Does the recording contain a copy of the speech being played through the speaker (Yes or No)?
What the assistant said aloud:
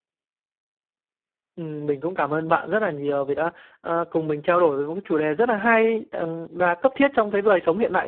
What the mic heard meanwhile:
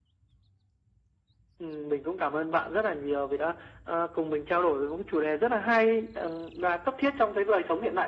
Yes